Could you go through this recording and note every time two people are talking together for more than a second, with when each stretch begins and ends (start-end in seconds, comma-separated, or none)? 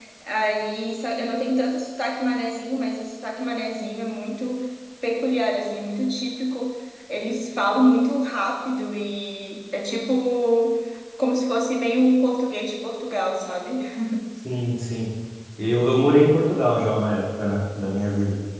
none